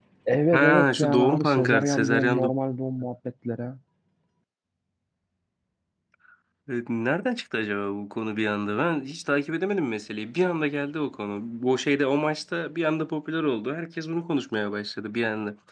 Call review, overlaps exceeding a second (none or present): present